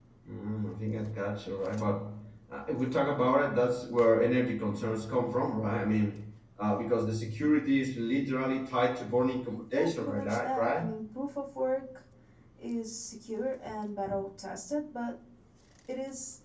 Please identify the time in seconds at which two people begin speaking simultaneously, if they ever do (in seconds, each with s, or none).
9.7 s